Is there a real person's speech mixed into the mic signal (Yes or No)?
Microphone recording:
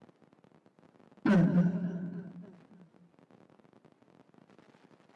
Yes